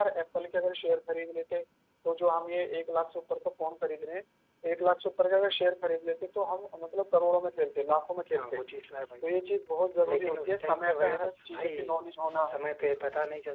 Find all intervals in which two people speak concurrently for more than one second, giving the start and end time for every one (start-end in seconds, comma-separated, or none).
10.1-11.8